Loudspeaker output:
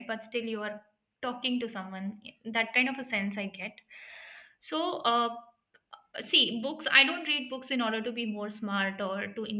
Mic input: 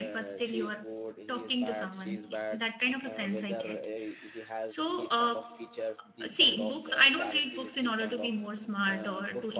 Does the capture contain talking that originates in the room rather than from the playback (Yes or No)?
Yes